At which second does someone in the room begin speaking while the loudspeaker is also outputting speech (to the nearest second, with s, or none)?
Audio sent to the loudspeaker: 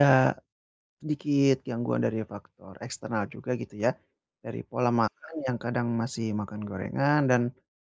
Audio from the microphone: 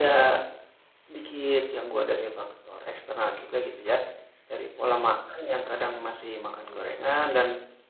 none